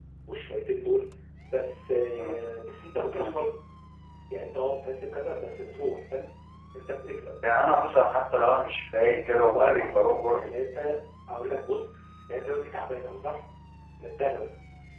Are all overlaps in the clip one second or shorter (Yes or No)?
No